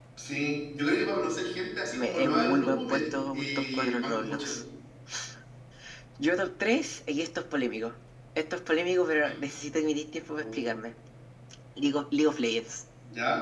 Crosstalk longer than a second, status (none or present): present